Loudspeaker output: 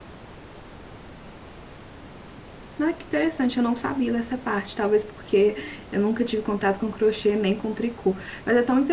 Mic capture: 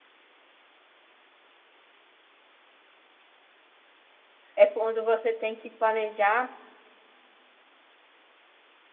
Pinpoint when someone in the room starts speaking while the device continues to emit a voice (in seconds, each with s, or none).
4.6 s